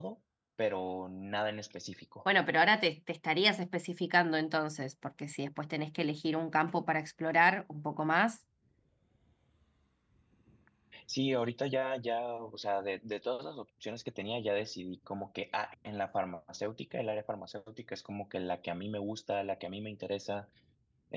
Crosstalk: none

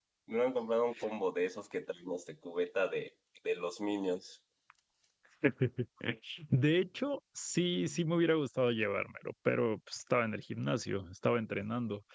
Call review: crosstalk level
none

